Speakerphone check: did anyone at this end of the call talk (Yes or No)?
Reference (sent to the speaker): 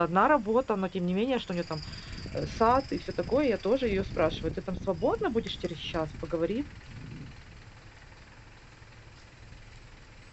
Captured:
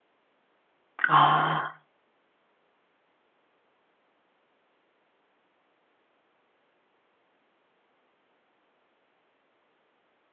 Yes